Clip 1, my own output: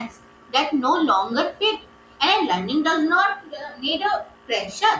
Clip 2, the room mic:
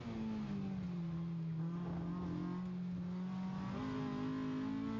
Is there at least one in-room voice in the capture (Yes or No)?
No